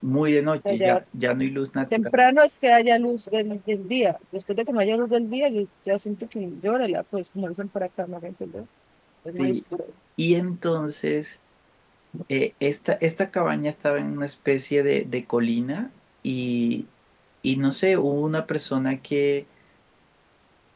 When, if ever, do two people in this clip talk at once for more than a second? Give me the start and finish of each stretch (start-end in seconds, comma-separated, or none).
none